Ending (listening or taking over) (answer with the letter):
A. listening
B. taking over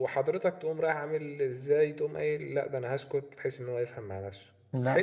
A